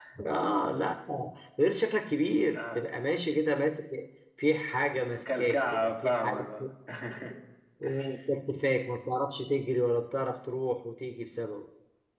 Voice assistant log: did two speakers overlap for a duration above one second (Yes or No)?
Yes